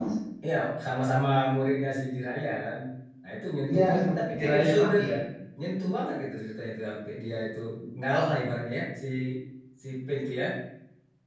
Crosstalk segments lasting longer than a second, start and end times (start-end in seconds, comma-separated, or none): 3.7-5.1